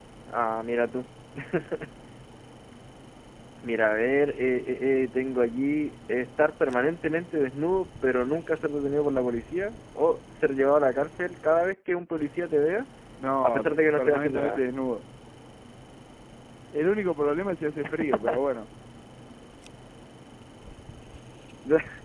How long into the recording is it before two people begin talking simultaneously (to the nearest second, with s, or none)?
13 s